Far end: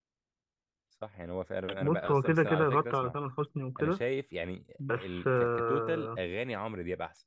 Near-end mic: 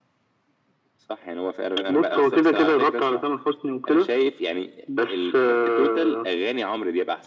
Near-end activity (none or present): none